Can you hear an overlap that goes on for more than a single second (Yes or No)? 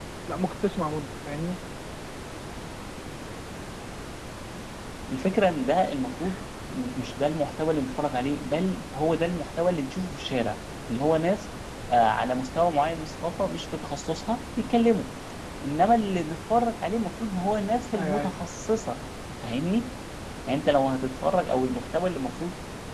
No